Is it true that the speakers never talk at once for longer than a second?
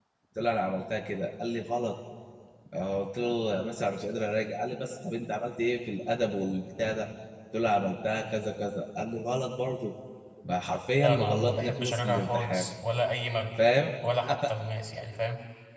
No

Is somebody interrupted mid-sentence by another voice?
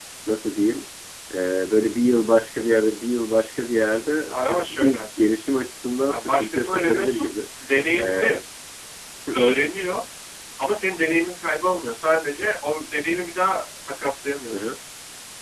Yes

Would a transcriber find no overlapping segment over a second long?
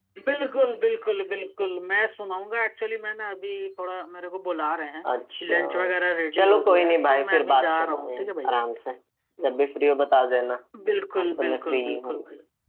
No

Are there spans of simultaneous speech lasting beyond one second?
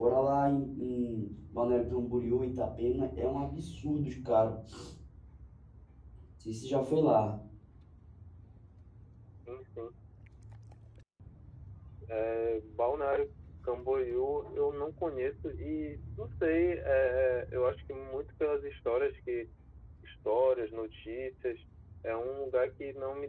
No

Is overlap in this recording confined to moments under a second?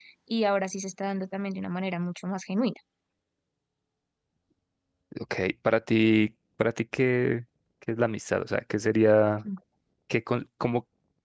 Yes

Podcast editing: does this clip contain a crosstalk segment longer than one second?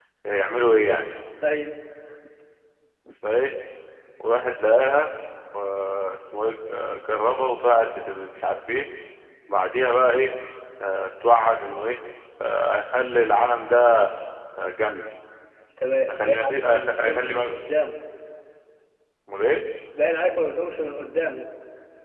Yes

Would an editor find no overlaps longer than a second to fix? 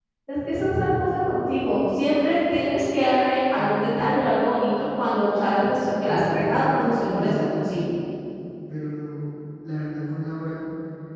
No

